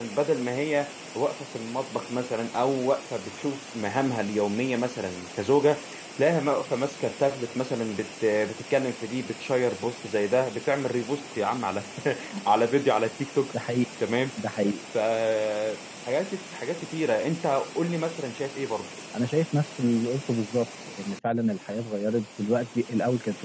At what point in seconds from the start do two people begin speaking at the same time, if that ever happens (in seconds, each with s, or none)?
none